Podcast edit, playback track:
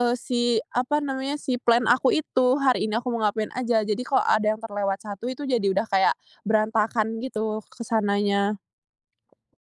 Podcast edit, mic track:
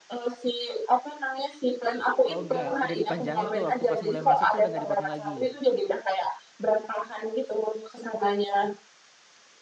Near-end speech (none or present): present